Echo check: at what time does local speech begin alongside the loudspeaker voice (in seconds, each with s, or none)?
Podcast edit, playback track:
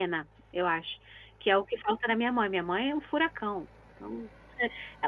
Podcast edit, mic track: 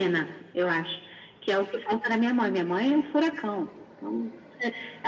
none